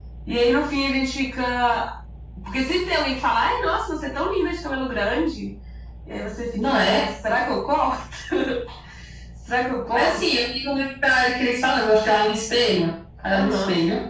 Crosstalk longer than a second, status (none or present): none